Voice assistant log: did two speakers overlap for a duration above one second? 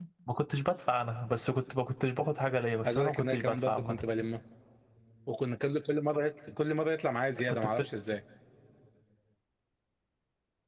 Yes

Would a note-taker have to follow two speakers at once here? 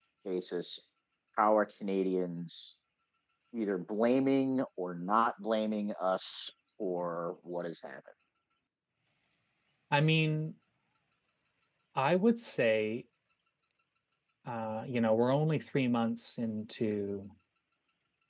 No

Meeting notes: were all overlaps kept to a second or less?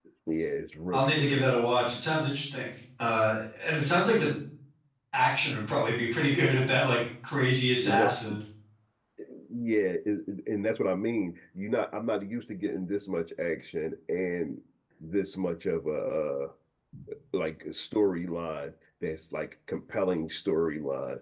Yes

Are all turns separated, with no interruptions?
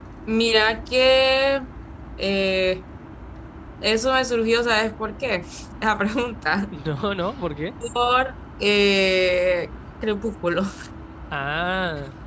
Yes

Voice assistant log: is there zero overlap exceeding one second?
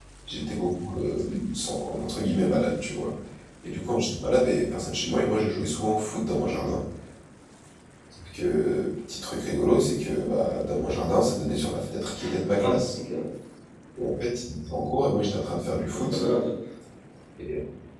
Yes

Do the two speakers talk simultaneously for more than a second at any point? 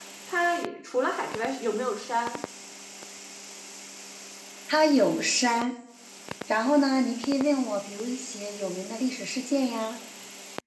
No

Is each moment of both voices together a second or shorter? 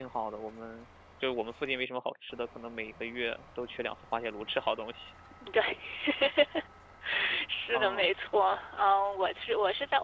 Yes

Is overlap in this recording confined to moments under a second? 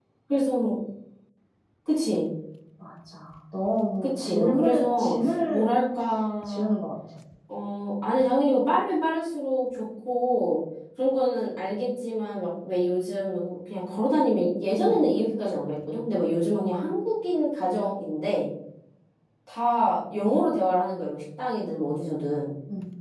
No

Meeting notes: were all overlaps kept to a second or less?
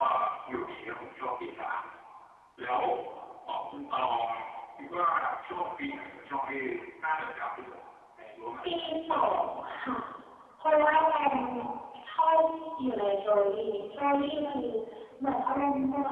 Yes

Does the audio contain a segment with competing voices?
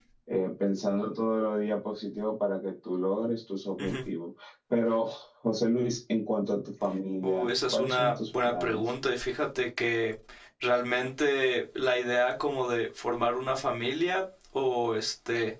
Yes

